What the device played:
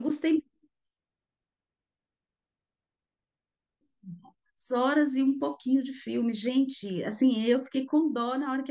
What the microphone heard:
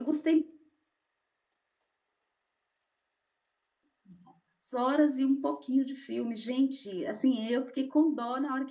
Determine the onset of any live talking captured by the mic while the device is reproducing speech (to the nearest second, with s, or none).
none